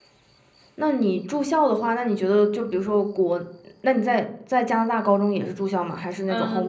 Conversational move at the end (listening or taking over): taking over